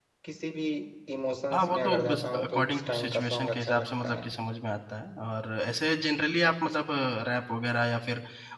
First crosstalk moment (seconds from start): 1.5 s

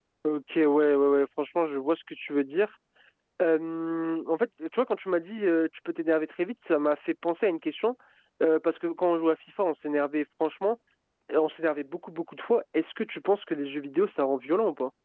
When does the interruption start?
none

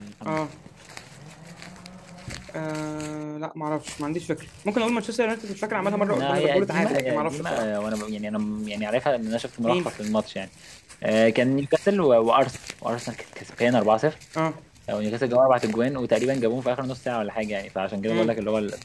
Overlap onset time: 5.7 s

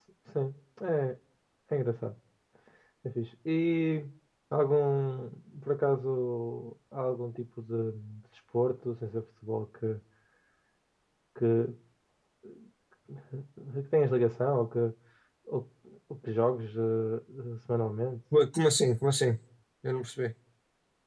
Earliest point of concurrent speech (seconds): none

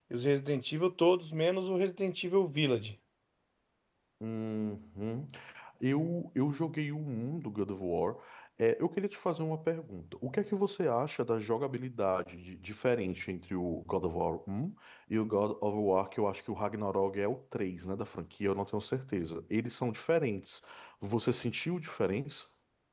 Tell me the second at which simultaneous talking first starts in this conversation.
none

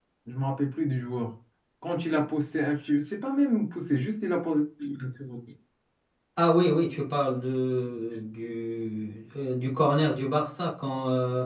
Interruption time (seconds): none

